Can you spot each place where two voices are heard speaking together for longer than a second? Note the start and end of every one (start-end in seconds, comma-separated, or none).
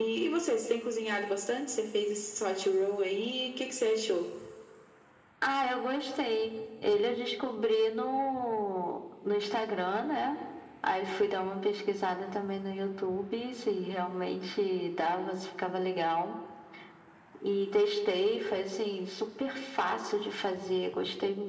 none